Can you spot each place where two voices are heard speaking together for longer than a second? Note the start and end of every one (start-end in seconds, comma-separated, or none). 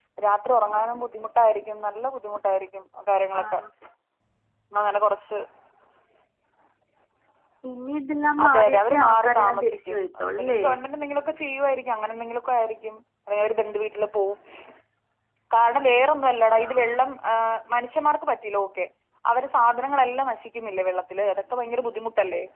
8.4-10.6